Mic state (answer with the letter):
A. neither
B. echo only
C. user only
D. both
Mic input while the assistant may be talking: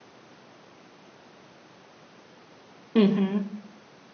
C